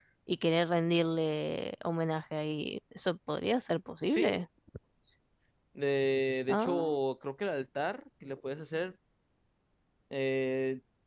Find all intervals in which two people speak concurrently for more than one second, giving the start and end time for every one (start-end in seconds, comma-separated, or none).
none